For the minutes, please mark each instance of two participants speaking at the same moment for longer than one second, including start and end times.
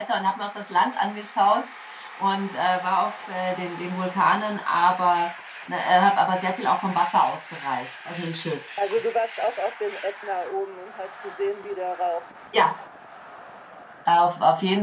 none

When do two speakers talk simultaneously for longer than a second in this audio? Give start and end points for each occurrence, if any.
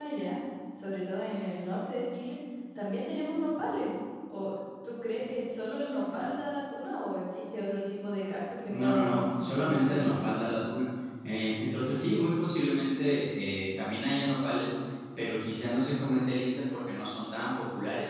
8.7-10.3

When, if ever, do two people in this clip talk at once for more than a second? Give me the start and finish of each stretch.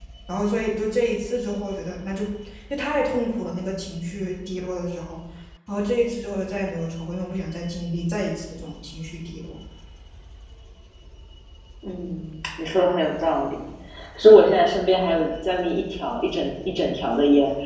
none

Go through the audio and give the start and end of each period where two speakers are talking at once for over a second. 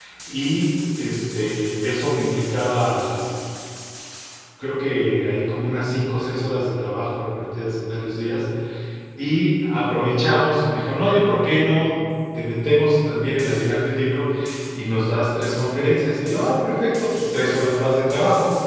none

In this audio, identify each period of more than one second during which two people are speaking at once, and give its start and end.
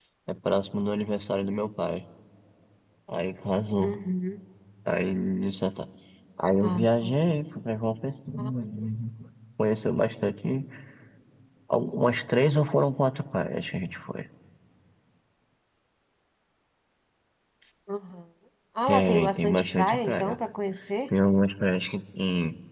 18.9-20.4

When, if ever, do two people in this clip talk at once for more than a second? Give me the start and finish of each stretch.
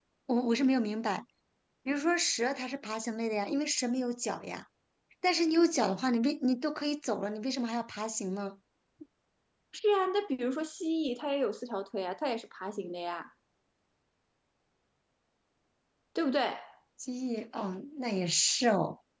none

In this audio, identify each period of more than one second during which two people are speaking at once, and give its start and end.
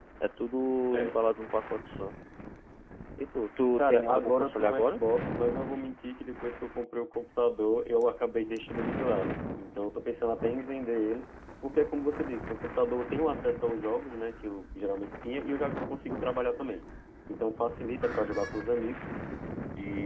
3.8-5.0

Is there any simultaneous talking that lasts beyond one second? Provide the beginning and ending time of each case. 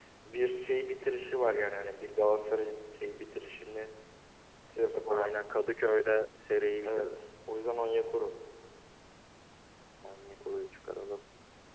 none

